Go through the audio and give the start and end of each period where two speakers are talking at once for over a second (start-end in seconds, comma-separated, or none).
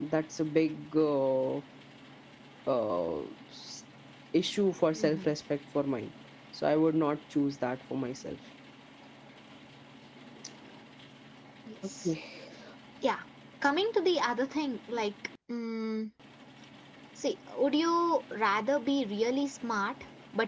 none